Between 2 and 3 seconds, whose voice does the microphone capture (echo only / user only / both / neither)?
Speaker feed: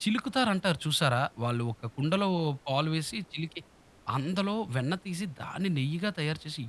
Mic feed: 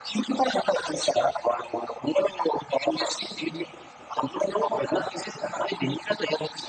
echo only